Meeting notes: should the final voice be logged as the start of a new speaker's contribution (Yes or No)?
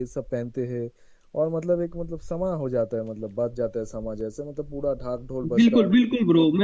Yes